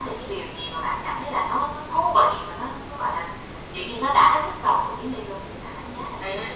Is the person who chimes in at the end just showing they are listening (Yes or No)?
No